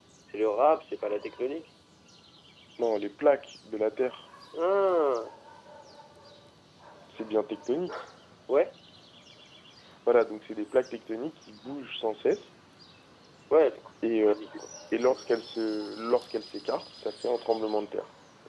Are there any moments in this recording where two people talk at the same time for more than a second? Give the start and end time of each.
none

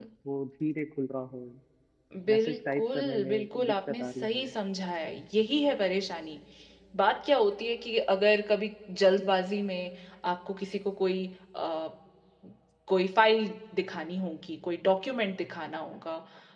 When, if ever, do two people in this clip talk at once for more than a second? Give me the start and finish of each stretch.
2.3-4.5

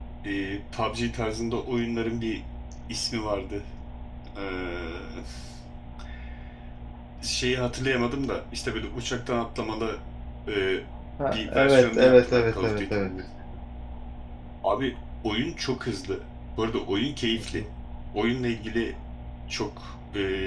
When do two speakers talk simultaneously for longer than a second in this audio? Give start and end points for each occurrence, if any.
11.2-13.1

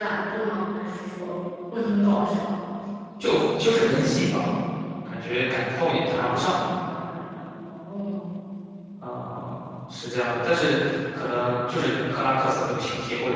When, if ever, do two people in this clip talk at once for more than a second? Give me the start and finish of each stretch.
none

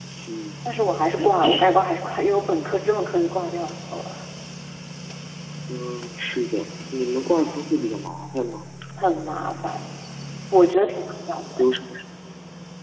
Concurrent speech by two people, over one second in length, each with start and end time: none

